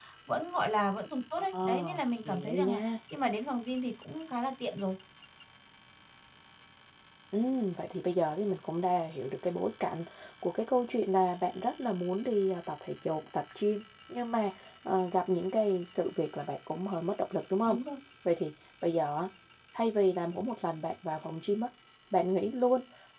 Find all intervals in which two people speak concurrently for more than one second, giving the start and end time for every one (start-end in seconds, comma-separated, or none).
1.4-2.8